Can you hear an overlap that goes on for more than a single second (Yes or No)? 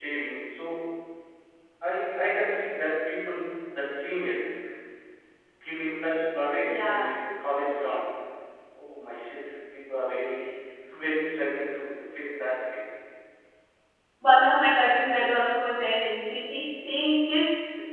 No